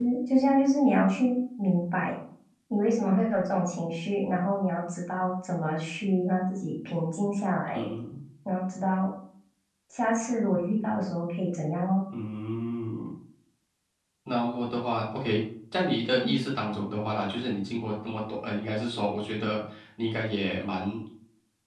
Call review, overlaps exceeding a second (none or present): none